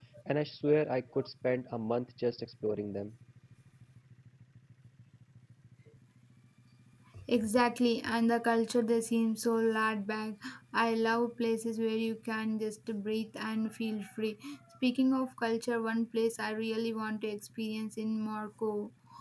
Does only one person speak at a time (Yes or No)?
Yes